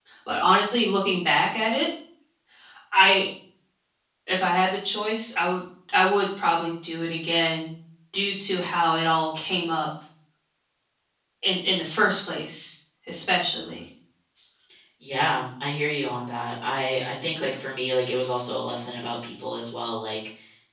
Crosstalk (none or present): none